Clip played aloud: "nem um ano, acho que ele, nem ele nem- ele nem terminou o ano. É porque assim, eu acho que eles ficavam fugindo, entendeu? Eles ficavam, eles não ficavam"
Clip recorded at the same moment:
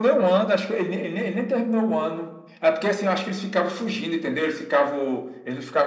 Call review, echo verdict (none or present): present